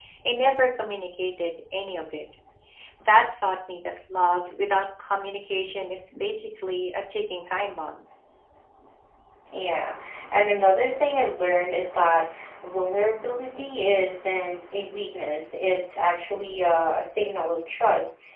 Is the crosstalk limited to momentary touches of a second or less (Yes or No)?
Yes